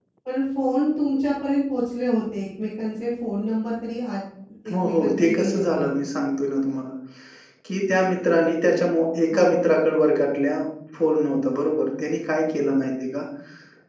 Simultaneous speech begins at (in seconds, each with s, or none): 4.7 s